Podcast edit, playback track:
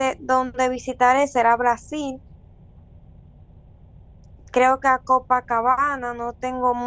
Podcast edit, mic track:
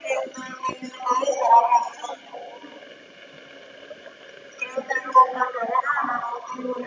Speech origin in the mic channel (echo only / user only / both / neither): echo only